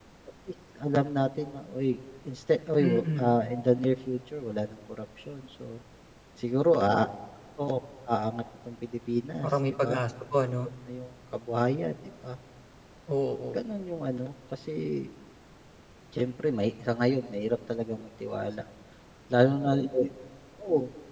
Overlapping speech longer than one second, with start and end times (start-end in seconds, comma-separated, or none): none